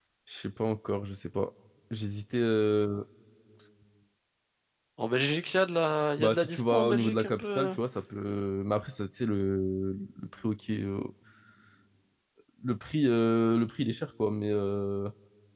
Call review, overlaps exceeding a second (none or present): present